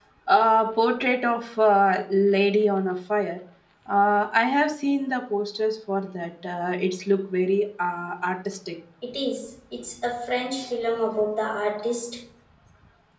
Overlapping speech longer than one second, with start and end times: none

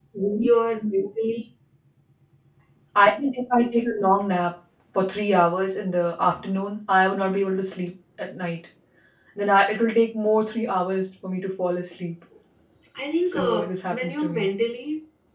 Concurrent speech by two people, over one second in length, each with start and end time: 13.3-14.5

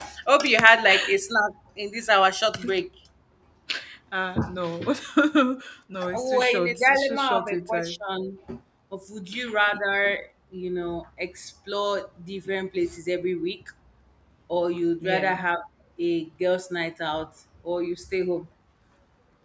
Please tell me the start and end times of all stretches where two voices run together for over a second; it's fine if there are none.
6.1-8.0

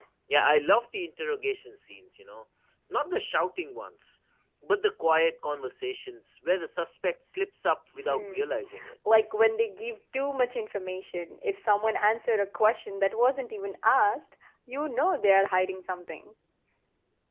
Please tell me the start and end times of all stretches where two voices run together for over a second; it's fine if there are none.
none

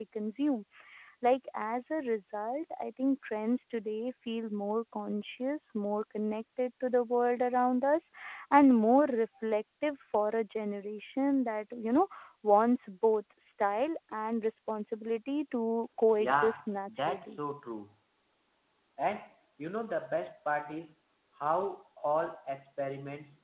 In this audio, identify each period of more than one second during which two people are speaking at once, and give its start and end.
16.2-17.4

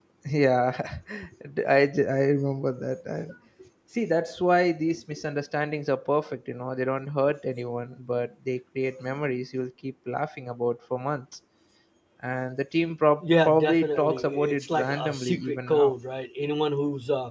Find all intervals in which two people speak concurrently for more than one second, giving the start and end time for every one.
13.2-15.9

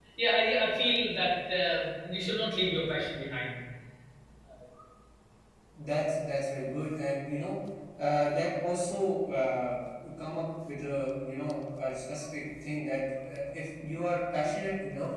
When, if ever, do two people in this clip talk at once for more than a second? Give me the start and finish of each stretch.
none

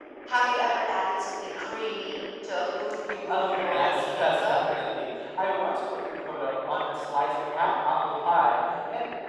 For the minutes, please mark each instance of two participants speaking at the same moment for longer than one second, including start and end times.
3.3-4.6

